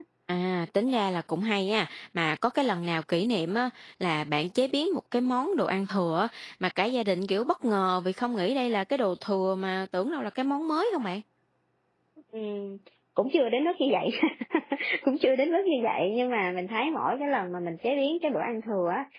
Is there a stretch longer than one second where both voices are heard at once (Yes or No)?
No